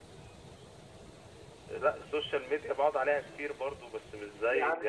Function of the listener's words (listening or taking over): taking over